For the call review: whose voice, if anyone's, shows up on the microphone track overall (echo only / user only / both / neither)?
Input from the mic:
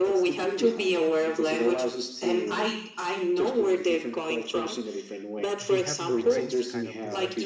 both